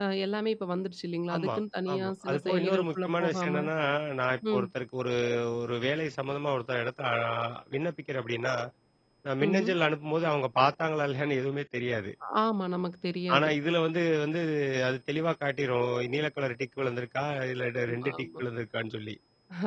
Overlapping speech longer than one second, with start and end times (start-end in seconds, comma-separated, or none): 1.9-3.5